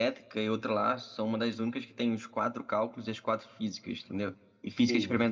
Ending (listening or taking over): listening